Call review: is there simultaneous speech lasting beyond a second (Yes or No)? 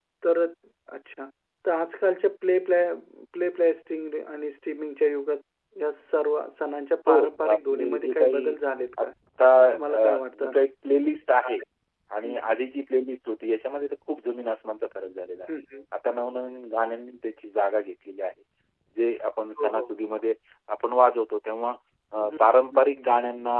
Yes